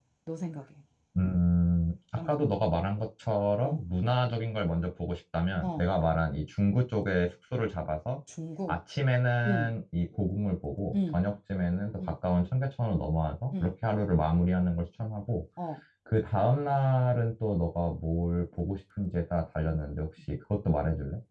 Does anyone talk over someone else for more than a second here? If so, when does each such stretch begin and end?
none

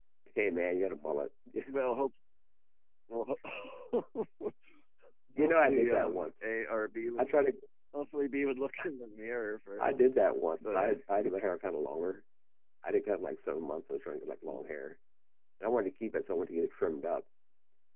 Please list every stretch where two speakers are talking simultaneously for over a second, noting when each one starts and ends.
5.4-6.6

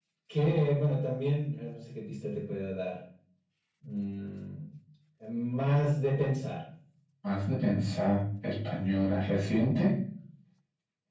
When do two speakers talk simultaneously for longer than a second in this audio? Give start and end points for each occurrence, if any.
none

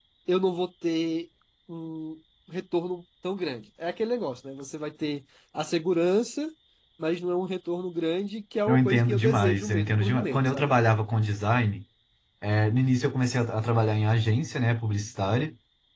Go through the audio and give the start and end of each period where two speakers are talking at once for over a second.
8.7-10.7

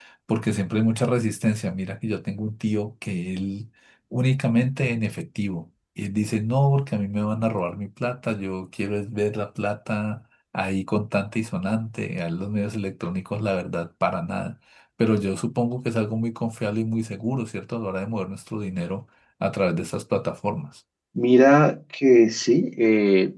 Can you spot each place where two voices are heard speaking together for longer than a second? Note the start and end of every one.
none

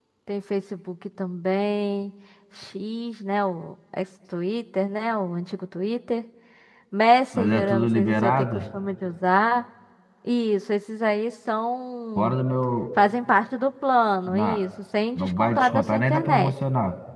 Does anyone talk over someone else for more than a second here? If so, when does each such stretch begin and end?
7.3-8.6, 15.2-16.5

